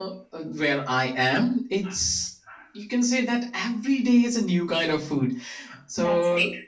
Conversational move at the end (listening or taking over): listening